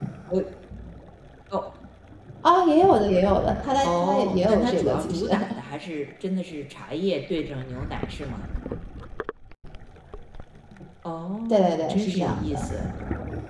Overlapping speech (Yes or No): Yes